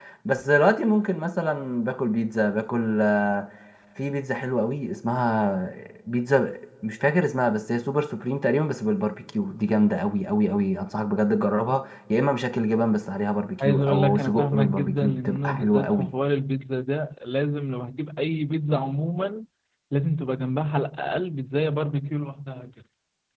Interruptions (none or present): present